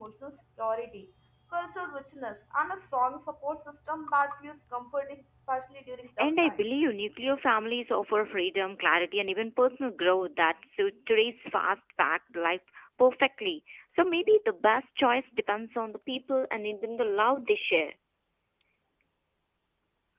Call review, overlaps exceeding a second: none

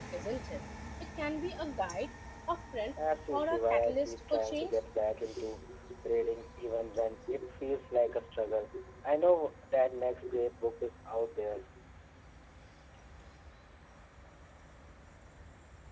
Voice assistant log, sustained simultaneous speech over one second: present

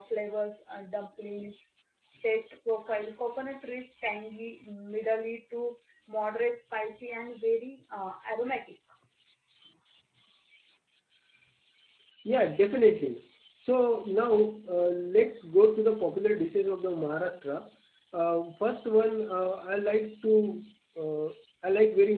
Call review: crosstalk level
none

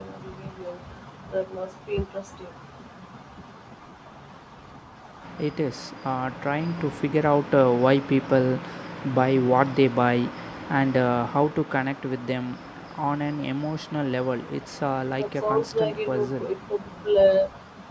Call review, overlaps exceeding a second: present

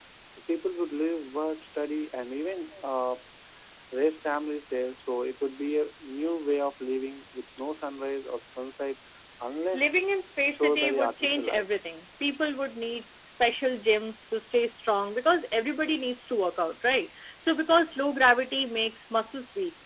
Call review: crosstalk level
present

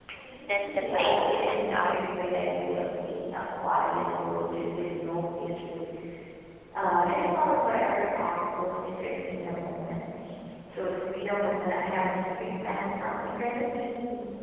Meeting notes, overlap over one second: present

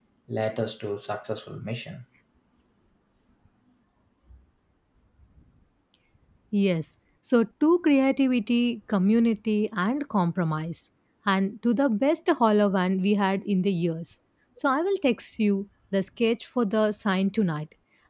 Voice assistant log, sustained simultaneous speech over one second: none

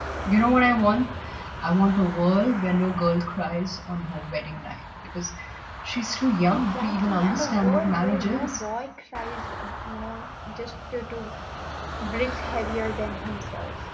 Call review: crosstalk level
present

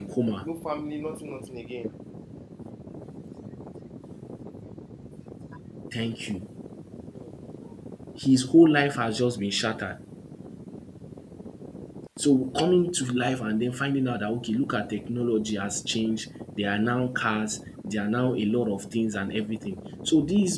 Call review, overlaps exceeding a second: none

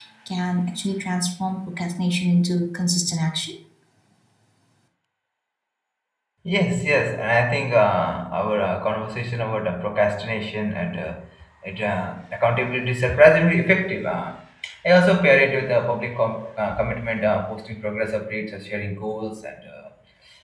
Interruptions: none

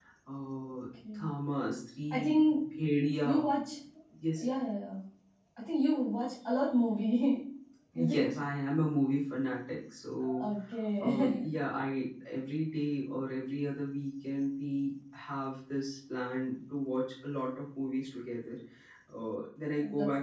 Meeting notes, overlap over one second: none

